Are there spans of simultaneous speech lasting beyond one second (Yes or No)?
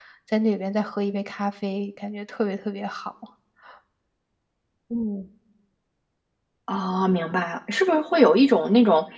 No